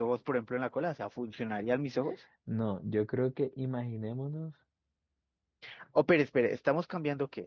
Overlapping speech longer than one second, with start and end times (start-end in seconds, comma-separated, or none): none